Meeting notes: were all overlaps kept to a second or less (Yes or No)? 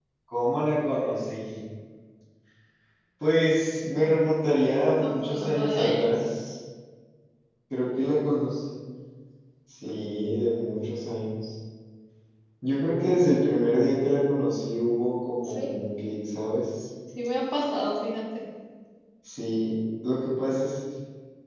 No